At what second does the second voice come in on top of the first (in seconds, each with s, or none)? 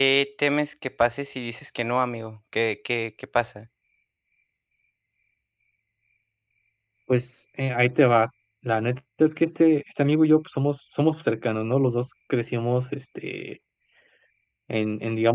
none